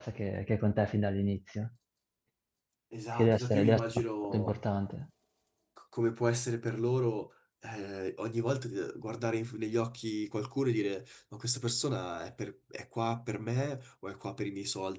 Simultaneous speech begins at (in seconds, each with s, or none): 3.2 s